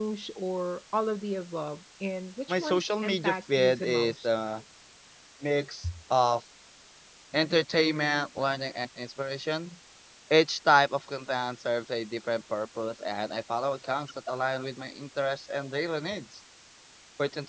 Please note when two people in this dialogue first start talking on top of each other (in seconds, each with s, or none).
2.5 s